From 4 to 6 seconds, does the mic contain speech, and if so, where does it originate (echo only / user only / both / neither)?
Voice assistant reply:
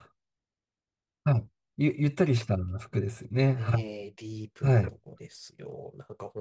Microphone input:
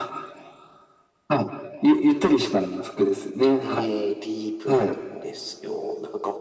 echo only